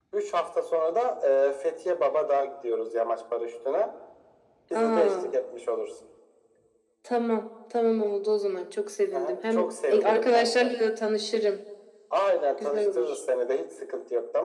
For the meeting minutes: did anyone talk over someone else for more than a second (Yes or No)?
Yes